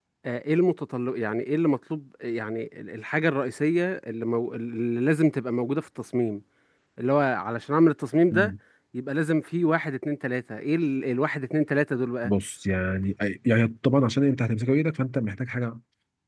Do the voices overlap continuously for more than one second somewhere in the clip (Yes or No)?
No